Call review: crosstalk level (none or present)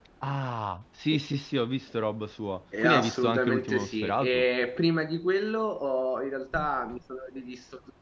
present